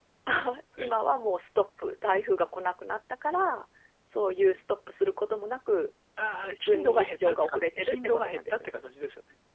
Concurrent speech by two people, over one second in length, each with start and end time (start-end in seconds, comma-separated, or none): 6.4-8.7